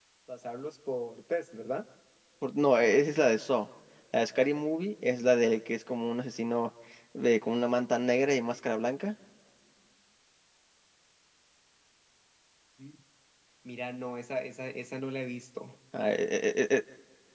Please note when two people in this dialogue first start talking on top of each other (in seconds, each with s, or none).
none